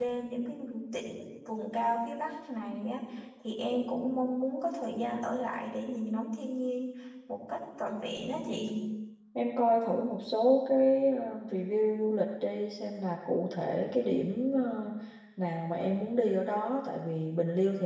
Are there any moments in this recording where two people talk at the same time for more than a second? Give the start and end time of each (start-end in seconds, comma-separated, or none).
none